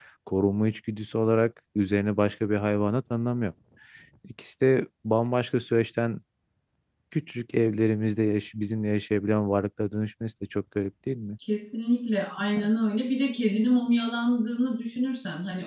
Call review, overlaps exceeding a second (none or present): none